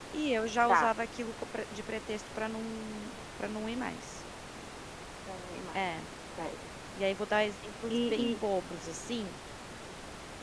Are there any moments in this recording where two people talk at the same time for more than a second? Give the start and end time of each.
none

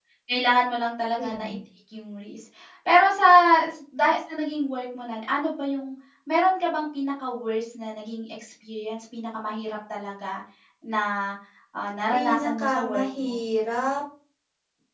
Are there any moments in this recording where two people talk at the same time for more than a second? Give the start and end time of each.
12.1-13.3

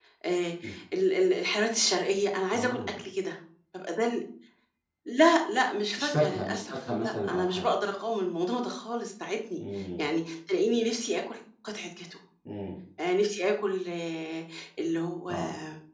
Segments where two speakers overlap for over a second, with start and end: 6.0-7.7

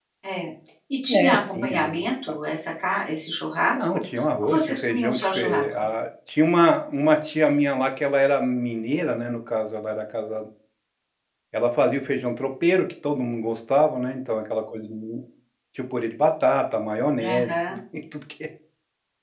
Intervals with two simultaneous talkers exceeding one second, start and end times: 1.1-2.4, 4.4-5.9

